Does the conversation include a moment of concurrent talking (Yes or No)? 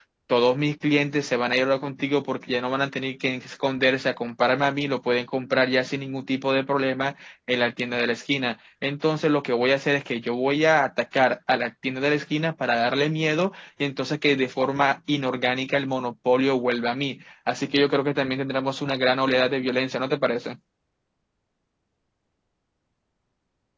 No